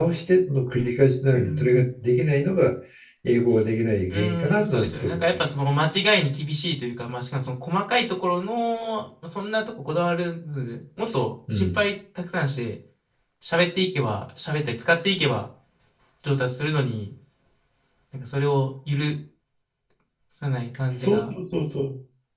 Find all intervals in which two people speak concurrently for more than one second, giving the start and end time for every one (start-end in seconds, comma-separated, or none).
4.1-5.4